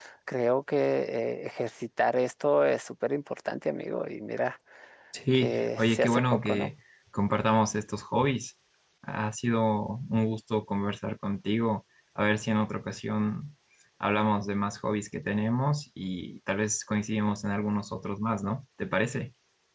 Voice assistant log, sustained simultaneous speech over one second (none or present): present